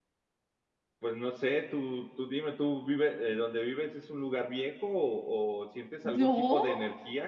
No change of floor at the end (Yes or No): Yes